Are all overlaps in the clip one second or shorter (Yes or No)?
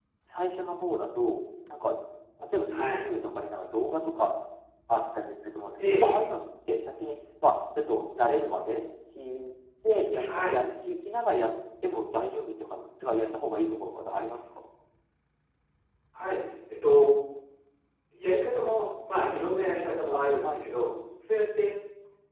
Yes